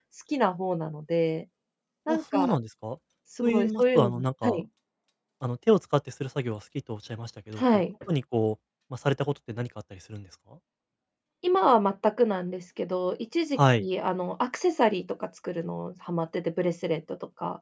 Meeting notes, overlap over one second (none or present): present